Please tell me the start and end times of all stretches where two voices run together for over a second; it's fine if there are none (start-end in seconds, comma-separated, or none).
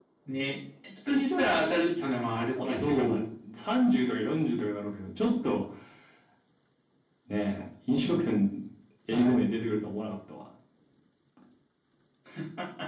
1.1-3.2